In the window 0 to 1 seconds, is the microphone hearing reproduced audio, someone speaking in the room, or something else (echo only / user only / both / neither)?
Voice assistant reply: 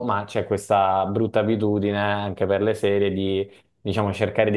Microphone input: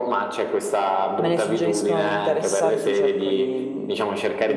echo only